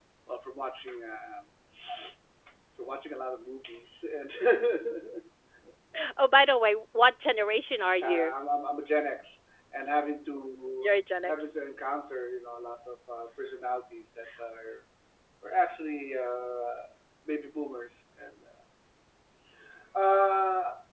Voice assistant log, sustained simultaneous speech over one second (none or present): none